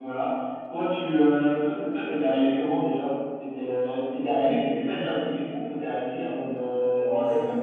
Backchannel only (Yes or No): No